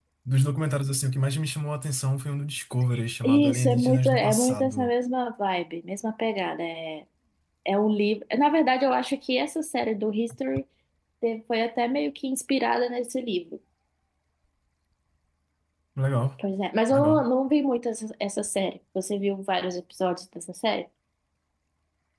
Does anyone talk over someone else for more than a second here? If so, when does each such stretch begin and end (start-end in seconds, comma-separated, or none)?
3.2-4.9